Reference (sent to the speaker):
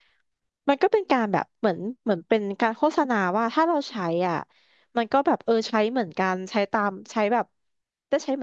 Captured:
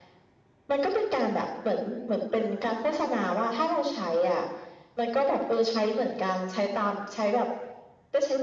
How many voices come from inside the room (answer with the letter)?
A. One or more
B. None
B